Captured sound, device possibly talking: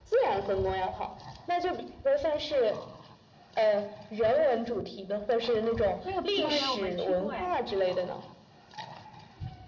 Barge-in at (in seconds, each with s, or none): 6.0 s